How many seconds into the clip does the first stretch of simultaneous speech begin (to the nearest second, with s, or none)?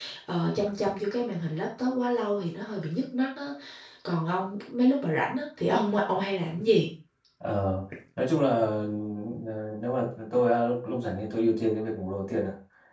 none